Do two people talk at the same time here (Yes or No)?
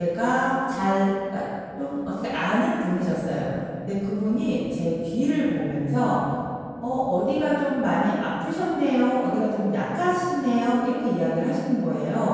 No